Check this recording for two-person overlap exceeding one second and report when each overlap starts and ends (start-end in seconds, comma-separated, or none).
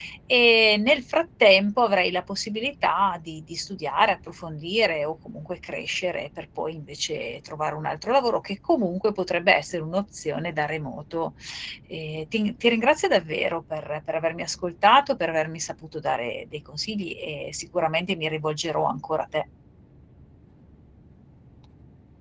none